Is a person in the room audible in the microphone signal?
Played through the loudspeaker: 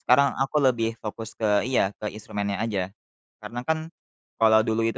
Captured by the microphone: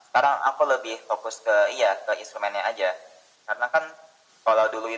No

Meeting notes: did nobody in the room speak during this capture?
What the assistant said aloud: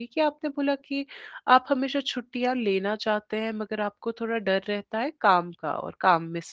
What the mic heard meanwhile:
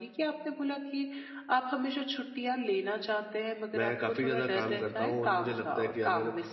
No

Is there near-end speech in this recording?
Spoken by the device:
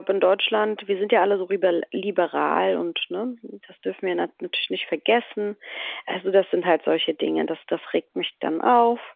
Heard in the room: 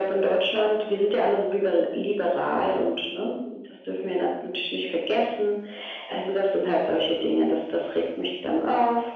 No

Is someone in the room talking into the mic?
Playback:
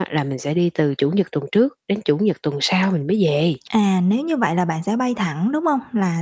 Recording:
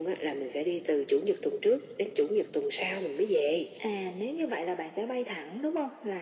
No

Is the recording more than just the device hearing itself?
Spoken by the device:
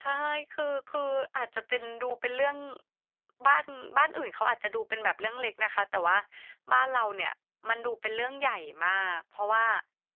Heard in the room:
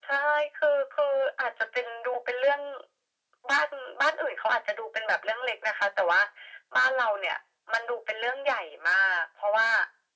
No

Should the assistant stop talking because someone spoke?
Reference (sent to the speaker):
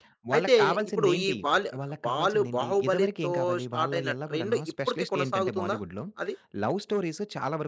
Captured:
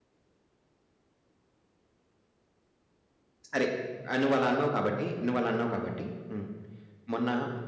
Yes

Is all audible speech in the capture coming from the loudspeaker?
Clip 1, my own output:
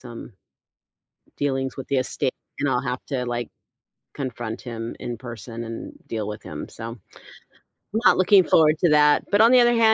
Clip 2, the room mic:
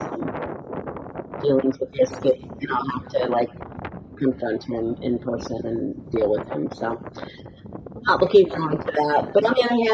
Yes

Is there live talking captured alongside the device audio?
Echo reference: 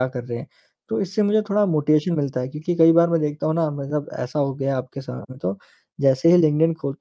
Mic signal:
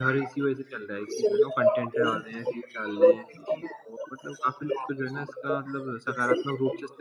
Yes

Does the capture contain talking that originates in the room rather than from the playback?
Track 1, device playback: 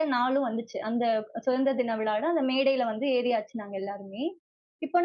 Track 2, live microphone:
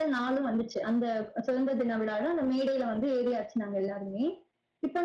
No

